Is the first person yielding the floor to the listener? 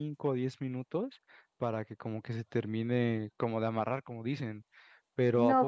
Yes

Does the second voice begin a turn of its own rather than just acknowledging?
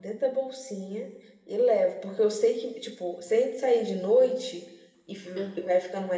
No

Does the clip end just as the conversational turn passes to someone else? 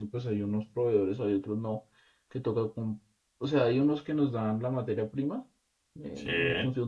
No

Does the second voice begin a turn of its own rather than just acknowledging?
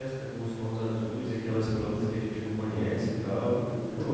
Yes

